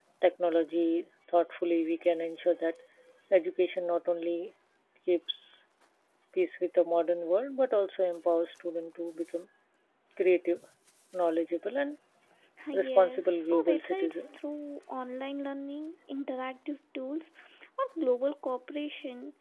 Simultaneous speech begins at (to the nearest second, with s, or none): 13 s